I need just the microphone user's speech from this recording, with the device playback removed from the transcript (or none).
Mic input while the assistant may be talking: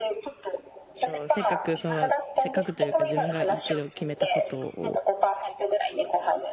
そう、せっかくその、せっかくというか自分が一度決めたことを